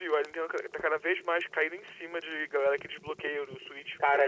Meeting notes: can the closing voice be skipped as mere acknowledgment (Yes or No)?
No